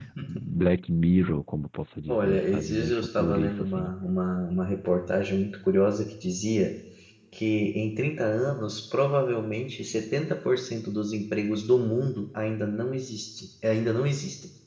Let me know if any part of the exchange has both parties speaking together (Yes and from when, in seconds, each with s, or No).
Yes, from 2.1 s